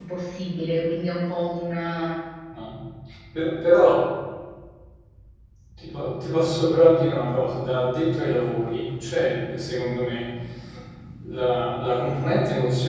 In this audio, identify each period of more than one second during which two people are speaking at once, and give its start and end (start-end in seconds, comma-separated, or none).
none